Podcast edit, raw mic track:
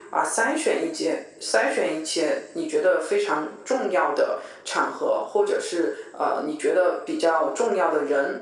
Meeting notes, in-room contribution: none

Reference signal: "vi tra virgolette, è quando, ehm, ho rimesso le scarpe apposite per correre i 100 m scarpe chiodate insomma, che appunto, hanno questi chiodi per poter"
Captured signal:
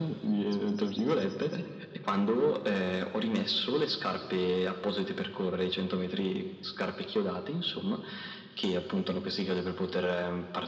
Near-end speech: none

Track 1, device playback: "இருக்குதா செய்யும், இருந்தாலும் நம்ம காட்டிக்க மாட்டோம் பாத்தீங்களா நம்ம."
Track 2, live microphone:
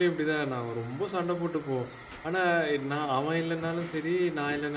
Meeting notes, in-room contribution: present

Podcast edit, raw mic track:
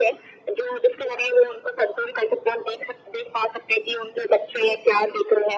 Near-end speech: none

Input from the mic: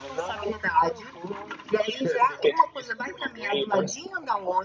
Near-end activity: none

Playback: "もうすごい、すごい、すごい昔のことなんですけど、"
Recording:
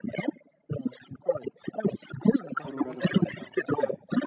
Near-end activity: present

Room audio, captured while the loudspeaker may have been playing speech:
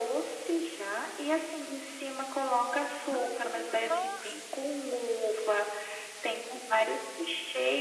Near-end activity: present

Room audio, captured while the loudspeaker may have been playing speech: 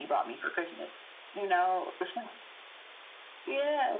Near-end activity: none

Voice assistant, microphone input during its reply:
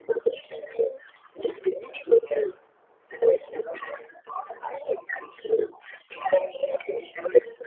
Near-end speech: none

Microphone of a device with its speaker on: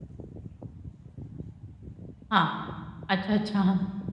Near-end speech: present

